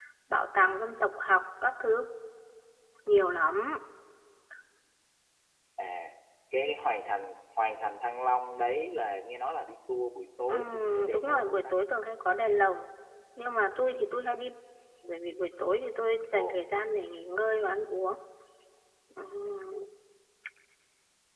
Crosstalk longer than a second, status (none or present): present